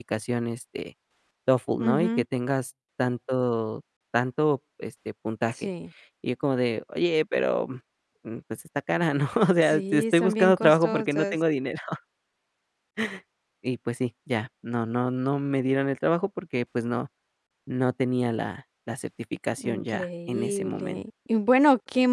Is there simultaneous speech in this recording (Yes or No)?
Yes